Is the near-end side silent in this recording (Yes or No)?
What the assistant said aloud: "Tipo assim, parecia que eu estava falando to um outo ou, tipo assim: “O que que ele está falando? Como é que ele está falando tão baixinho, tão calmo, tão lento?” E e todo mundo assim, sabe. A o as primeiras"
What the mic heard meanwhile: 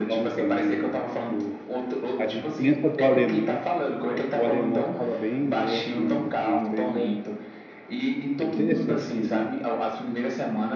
No